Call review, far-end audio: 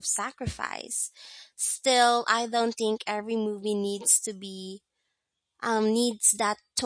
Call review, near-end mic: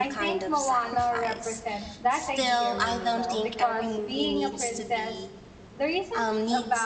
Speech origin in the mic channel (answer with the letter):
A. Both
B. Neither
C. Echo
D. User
A